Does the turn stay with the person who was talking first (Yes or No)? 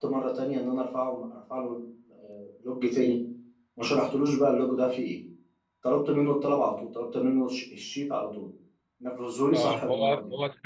No